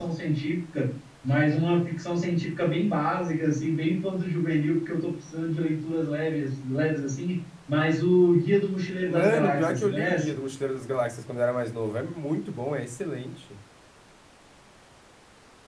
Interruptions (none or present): present